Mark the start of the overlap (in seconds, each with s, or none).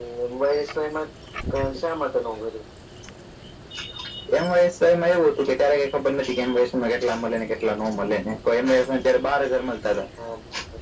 none